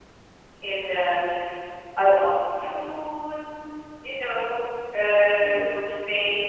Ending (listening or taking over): listening